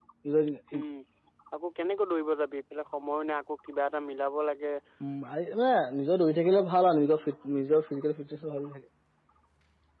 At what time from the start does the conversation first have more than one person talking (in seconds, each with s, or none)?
none